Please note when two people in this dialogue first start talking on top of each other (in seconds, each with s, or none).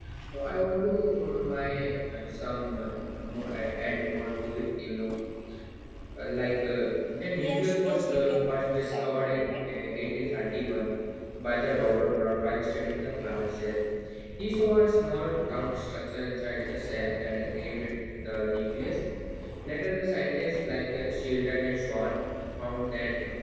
7.3 s